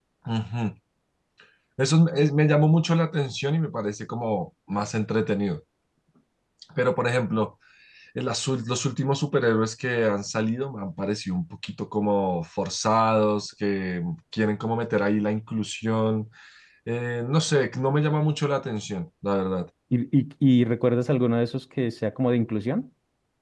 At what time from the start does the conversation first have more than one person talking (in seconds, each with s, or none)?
none